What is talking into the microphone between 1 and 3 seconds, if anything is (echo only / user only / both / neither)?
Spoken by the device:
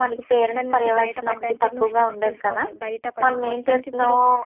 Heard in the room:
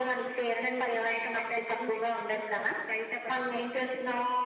echo only